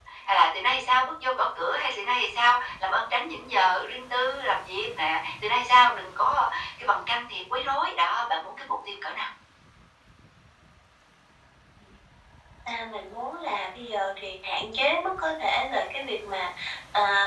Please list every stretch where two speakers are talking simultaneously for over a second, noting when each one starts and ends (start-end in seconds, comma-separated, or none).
none